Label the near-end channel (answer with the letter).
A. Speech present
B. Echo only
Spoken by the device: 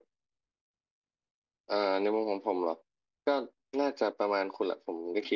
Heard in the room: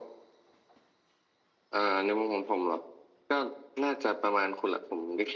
B